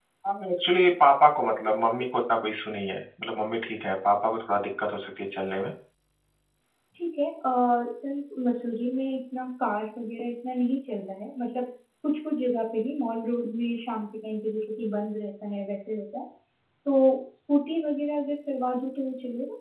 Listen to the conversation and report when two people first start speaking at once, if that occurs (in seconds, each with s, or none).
none